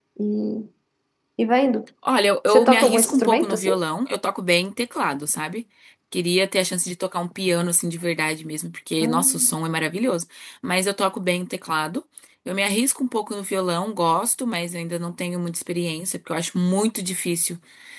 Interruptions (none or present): present